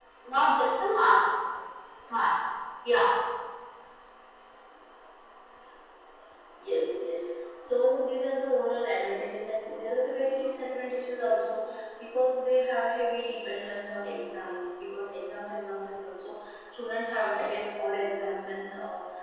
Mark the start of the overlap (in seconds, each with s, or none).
none